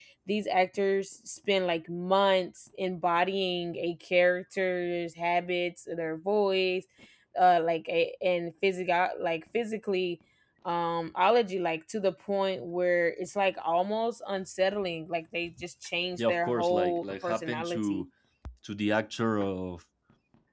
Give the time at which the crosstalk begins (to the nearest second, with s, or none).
16 s